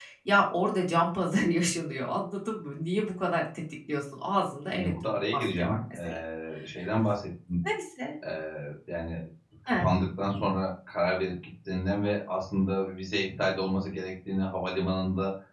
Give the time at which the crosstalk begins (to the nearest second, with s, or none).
5 s